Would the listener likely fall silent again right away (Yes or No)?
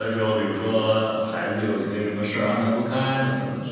Yes